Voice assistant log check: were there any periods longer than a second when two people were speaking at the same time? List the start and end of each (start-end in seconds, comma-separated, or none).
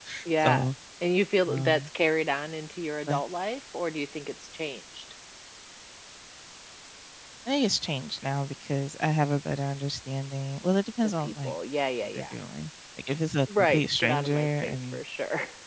13.6-15.0